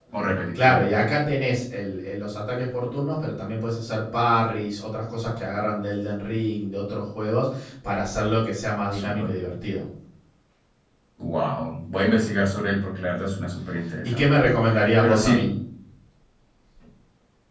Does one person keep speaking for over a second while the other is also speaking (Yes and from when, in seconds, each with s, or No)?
No